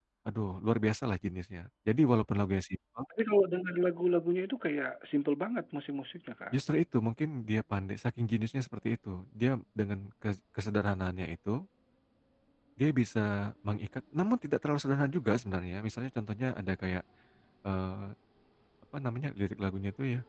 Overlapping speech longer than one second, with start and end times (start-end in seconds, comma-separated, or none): none